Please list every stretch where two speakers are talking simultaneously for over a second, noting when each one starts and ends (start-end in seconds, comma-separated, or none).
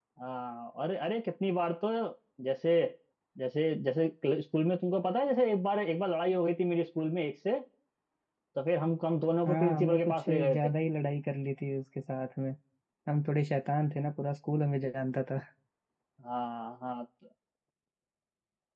9.4-10.7